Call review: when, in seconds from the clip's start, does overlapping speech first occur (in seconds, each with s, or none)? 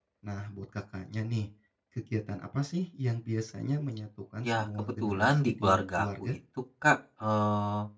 4.4 s